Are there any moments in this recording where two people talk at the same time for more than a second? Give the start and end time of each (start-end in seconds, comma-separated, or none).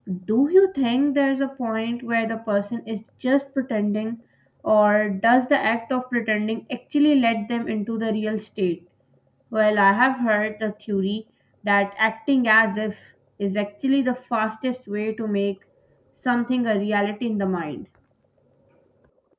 none